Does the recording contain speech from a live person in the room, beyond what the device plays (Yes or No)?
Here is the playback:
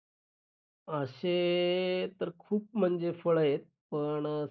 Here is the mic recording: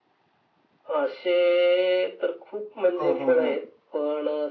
Yes